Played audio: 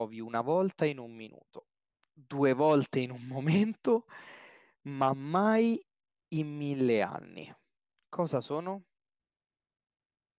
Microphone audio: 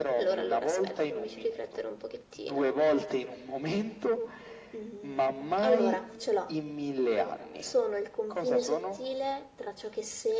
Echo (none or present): present